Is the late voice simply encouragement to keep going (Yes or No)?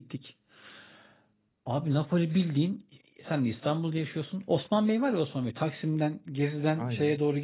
Yes